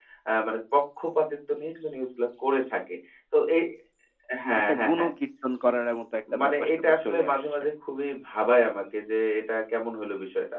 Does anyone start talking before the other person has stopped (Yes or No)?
Yes